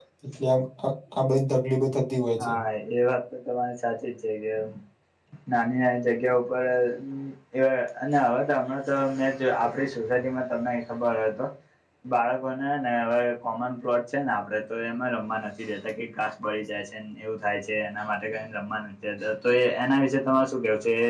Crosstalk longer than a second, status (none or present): none